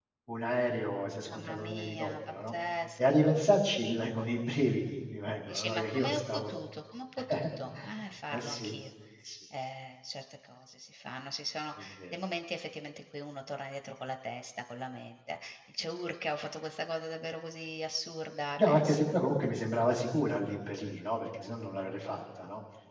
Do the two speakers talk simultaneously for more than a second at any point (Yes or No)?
Yes